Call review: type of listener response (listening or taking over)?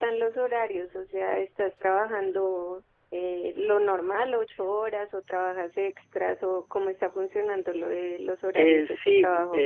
taking over